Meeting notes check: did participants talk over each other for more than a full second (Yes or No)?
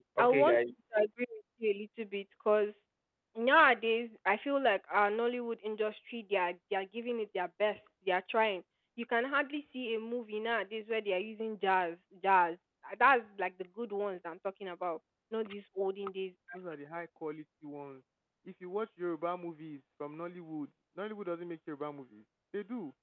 No